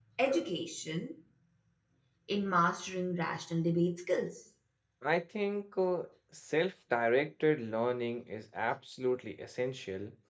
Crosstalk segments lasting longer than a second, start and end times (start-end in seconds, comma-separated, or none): none